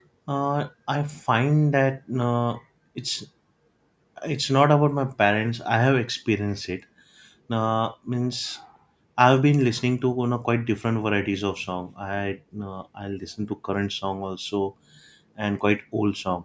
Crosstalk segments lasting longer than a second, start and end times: none

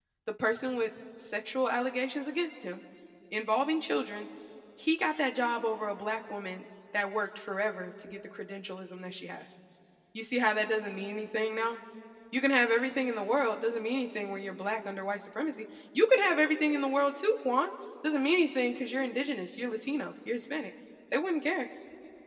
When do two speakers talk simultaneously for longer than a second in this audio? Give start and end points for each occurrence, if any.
none

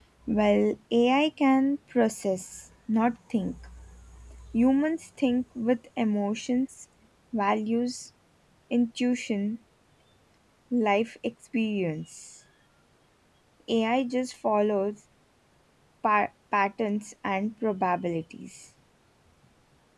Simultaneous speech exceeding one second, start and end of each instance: none

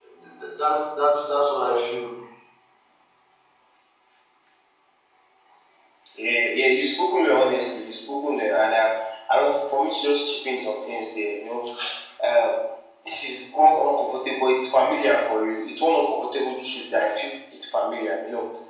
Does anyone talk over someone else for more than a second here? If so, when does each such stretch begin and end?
none

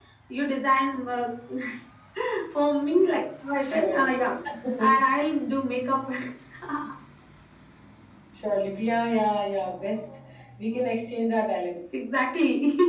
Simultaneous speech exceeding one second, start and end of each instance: none

